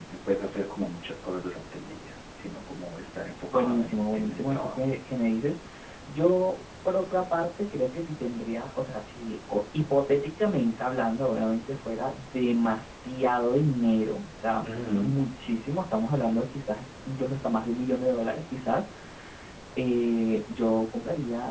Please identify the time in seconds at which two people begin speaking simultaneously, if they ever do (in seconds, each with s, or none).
3.5 s